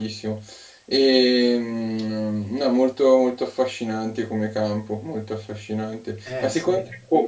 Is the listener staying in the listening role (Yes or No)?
Yes